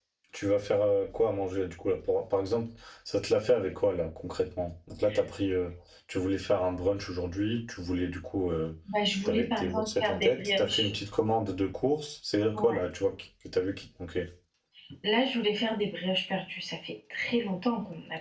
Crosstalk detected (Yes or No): Yes